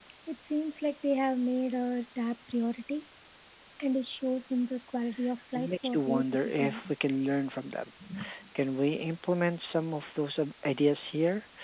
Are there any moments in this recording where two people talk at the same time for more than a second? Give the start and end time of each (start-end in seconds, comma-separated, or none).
5.5-6.9